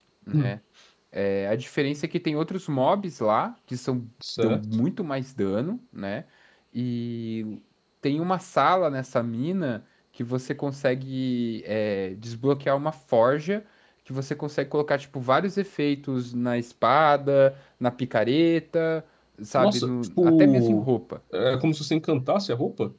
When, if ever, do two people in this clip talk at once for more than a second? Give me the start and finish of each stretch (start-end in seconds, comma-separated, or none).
19.6-20.9